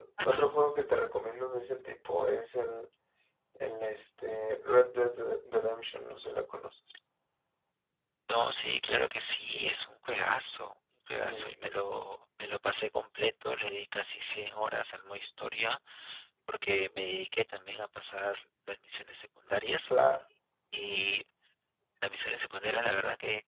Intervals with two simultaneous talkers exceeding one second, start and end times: none

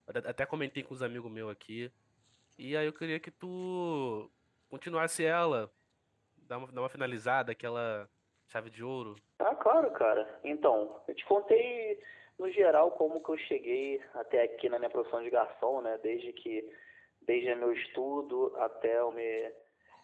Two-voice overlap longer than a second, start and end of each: none

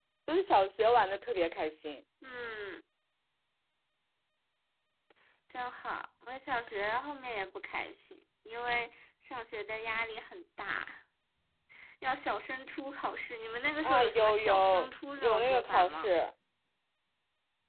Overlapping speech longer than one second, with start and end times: 13.8-16.1

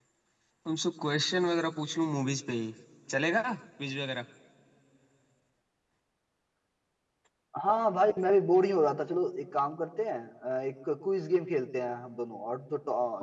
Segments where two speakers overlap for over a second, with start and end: none

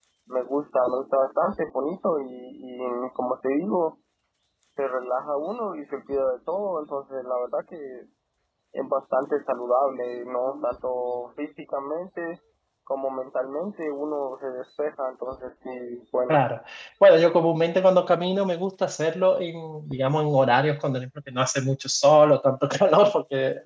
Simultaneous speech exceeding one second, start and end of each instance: none

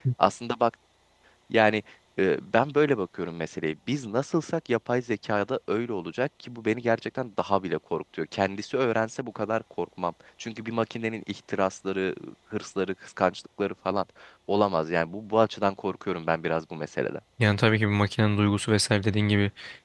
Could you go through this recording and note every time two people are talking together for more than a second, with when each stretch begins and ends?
none

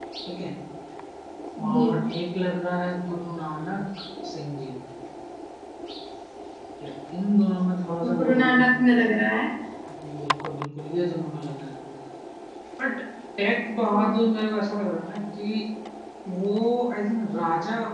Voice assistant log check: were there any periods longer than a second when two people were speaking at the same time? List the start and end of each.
none

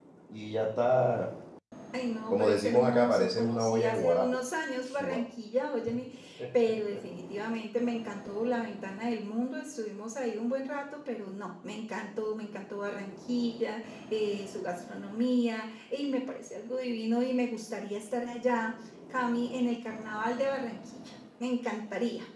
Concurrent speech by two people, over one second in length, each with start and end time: 2.3-4.4

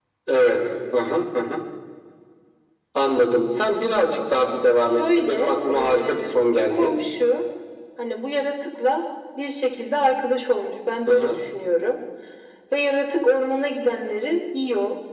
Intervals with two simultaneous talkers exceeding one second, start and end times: 5.0-6.9

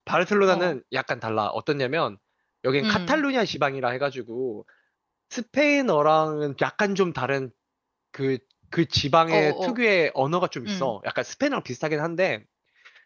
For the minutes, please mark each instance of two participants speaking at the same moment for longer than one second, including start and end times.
none

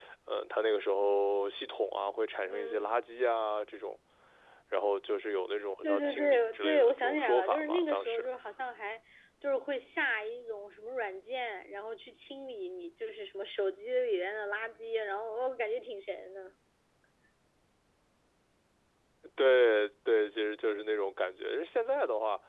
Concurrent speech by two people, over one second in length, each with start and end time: 5.8-8.2

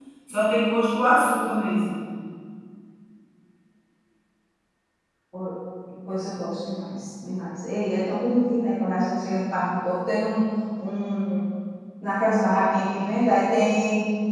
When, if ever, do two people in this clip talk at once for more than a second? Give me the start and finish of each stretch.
none

